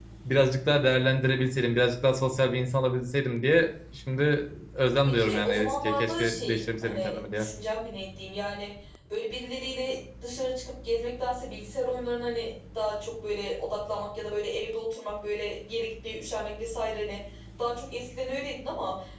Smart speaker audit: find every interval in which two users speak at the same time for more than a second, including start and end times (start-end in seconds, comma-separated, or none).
5.0-7.5